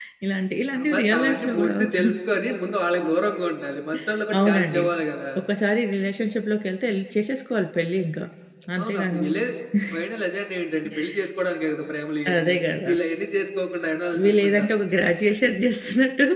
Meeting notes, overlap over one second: present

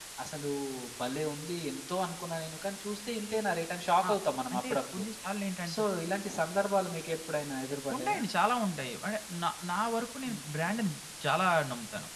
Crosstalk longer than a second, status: none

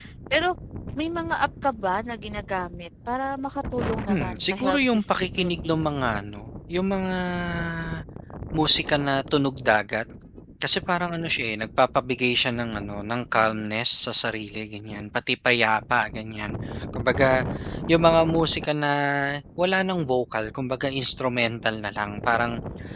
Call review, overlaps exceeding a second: present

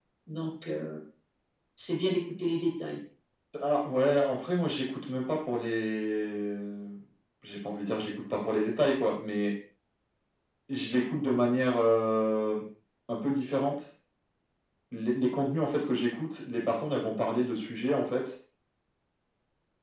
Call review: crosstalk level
none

